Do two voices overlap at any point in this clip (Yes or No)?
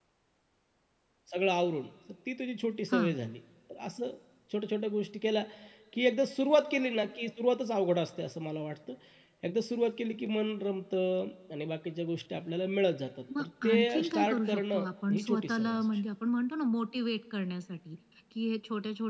Yes